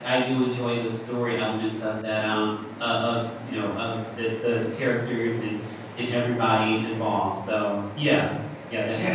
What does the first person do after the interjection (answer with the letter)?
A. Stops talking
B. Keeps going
A